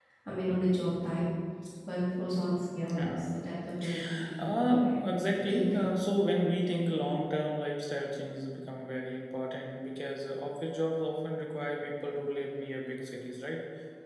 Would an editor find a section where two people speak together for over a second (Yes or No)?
Yes